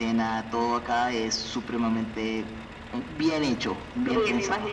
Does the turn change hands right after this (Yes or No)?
Yes